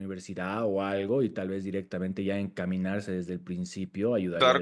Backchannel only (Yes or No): No